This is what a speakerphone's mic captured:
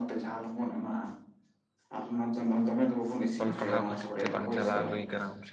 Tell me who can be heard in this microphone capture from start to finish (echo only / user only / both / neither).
both